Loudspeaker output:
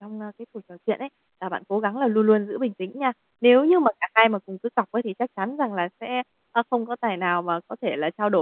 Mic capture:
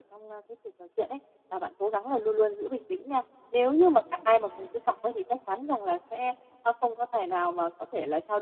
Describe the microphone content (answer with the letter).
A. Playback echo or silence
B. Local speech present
A